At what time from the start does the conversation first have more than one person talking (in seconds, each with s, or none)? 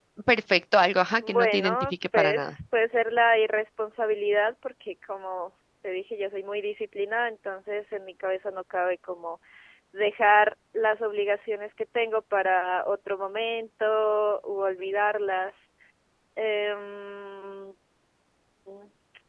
1.2 s